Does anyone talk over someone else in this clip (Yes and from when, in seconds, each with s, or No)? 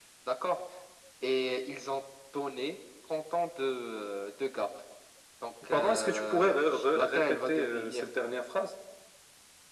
Yes, from 5.7 s